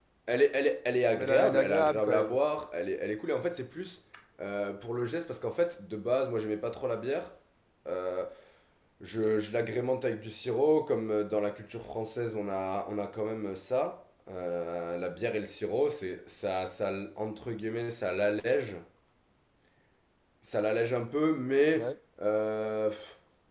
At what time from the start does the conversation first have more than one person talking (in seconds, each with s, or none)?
1.1 s